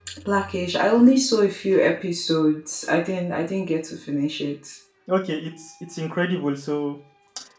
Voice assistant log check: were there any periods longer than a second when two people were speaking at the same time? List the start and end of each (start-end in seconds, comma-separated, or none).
none